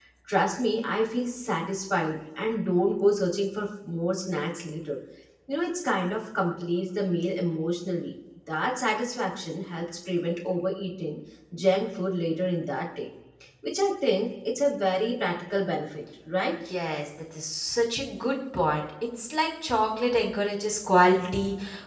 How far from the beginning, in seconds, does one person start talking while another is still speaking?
none

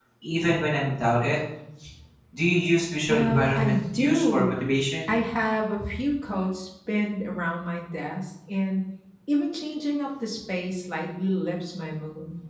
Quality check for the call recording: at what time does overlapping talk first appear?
3.1 s

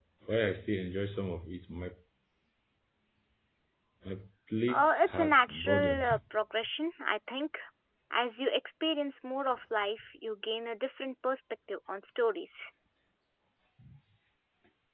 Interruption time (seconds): 4.7 s

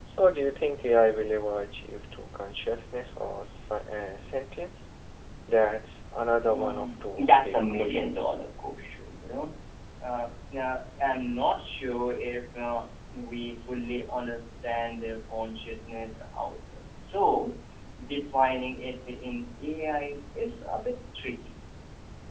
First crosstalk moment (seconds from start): 6.4 s

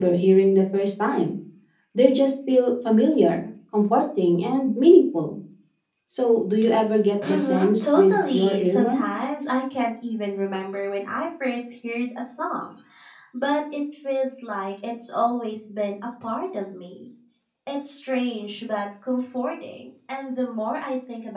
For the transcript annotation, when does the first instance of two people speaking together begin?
7.2 s

